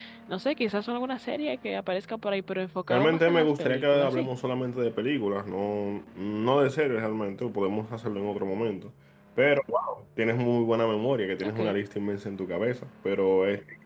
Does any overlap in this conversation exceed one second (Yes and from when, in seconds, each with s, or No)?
Yes, from 2.9 s